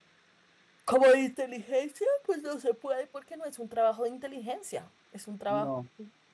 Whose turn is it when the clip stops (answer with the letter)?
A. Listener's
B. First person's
A